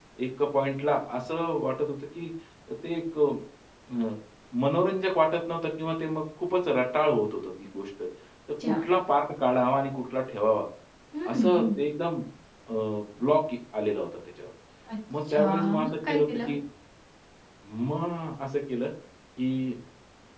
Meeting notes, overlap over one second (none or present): present